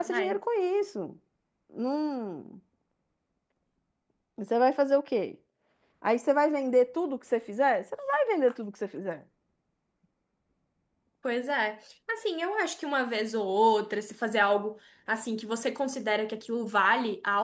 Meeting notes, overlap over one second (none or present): none